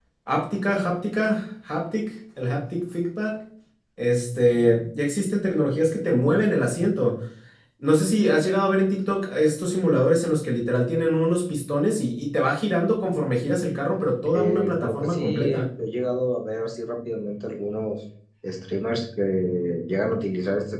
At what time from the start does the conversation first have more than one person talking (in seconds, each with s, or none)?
14.2 s